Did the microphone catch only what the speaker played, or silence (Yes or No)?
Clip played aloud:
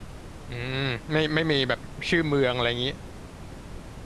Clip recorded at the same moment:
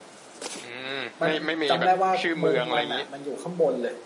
No